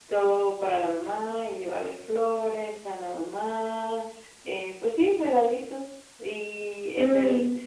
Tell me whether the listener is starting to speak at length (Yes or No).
No